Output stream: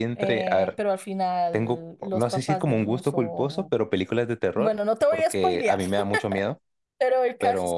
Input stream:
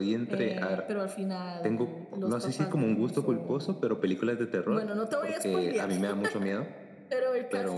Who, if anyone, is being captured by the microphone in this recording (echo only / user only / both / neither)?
echo only